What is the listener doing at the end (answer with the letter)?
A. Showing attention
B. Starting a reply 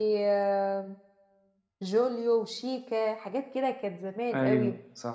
A